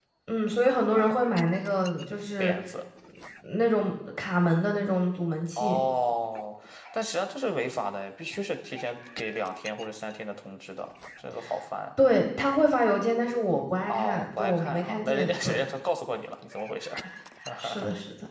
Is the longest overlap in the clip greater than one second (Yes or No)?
Yes